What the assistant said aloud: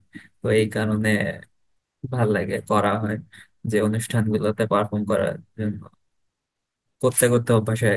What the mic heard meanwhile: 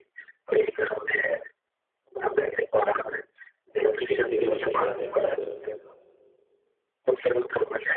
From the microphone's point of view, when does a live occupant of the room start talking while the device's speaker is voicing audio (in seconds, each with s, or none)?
3.8 s